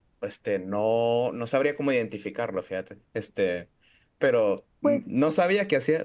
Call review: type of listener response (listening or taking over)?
listening